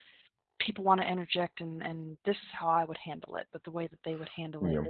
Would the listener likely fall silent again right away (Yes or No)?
Yes